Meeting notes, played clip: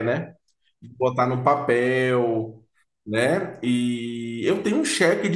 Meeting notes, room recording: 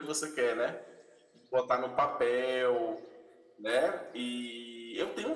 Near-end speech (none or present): none